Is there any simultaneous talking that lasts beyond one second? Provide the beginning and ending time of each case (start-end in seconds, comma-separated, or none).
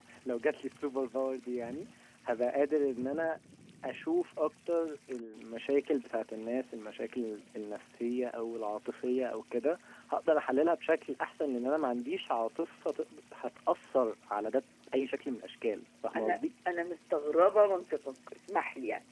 none